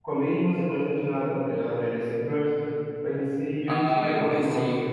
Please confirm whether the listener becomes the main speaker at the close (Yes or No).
Yes